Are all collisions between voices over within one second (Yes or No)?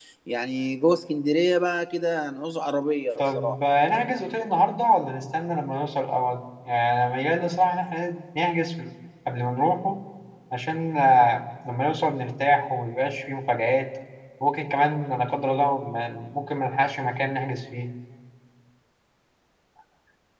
Yes